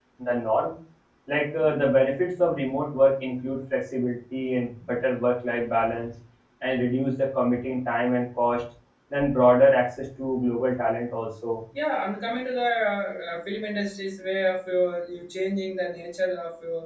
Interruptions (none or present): none